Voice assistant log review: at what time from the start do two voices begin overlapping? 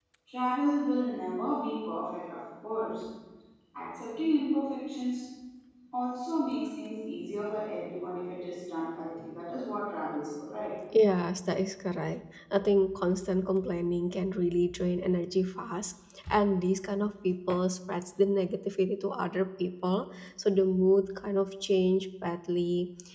none

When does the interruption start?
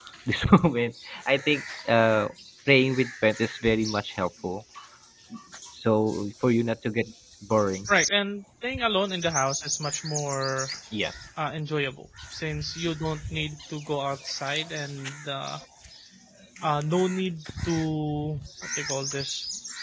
none

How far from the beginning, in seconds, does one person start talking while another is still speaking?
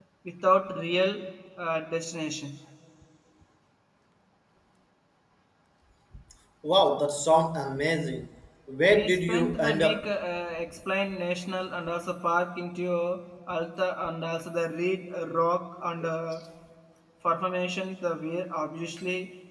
8.9 s

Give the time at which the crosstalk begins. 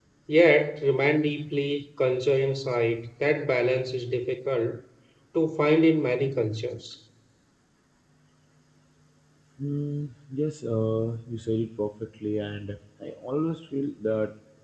none

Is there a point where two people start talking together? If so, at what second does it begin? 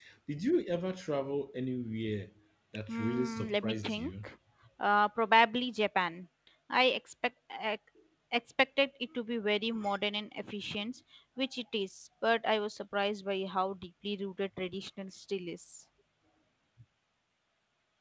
2.9 s

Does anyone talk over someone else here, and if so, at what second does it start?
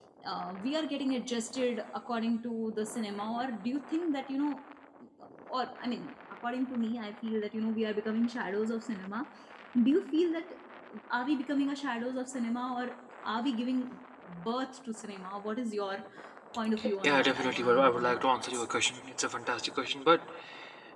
17.0 s

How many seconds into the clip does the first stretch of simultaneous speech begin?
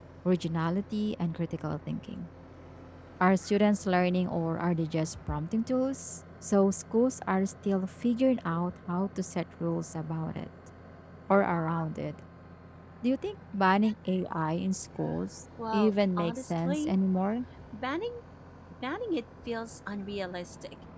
15.7 s

